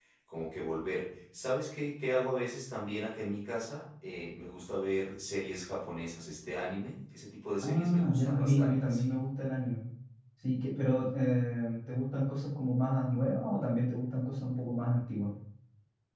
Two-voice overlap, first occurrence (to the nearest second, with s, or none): 8 s